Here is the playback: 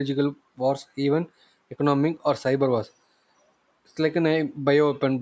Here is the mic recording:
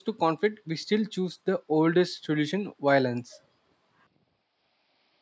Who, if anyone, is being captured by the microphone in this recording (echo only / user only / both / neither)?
user only